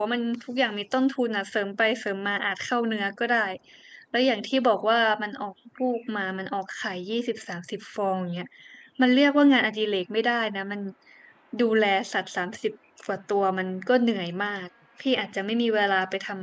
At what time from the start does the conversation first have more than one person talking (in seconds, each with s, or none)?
none